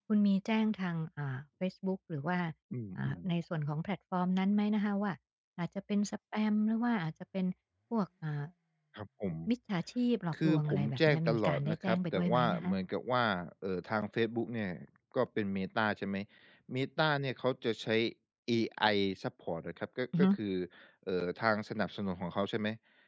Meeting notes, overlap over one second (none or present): present